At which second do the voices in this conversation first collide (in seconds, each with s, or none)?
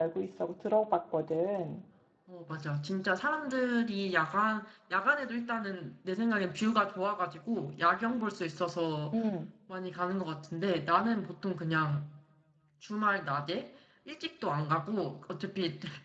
none